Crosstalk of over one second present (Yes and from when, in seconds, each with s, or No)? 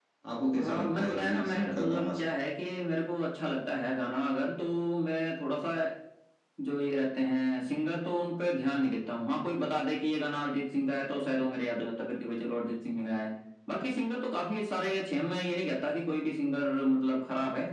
Yes, from 0.6 s